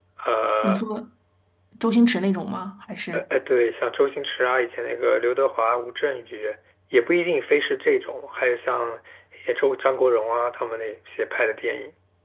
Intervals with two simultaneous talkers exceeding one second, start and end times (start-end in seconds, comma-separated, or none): none